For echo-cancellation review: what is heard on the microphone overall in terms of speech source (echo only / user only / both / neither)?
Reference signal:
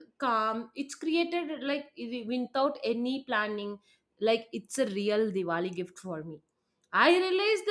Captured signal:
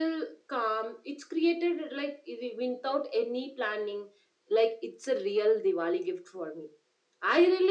echo only